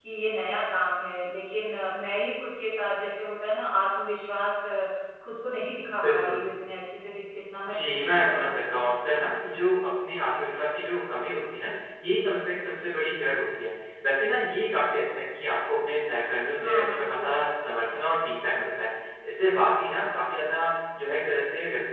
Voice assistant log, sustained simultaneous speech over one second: present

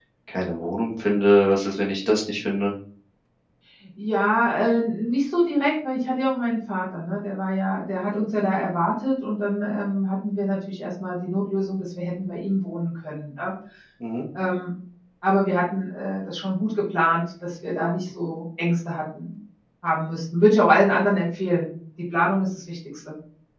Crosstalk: none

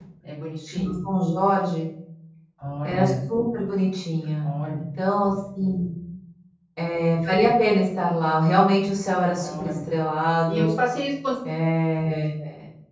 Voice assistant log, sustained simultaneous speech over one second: none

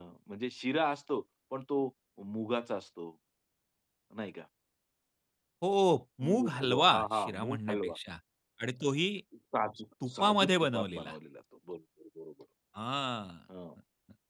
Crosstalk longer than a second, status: present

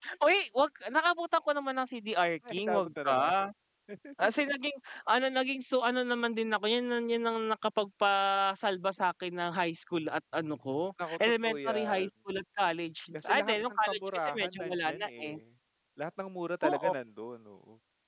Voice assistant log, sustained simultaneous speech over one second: present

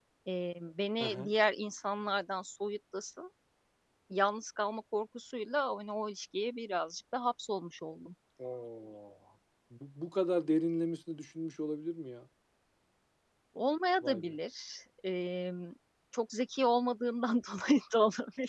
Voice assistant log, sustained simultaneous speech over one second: none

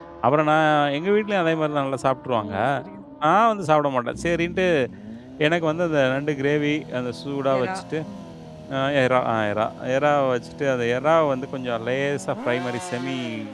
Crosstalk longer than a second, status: none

